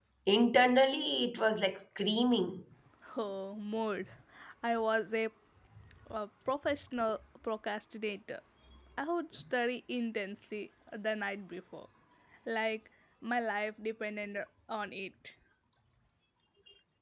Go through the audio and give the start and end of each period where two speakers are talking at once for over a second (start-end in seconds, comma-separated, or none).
none